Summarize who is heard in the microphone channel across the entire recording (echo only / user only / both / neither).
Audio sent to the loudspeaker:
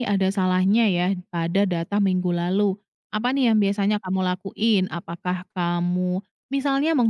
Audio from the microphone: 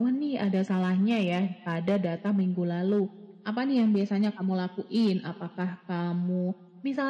echo only